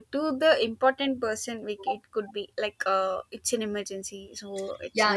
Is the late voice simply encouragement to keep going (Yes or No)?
No